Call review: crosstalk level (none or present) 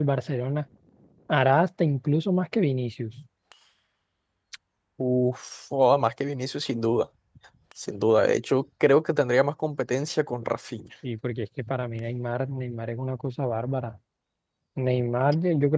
none